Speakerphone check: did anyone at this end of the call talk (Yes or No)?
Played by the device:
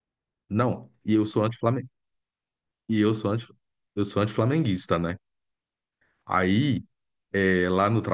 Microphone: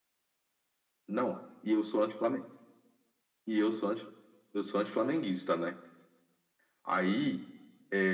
No